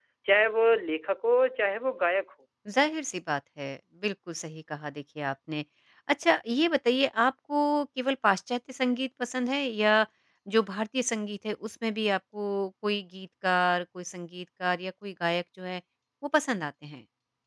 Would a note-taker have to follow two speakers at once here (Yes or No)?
No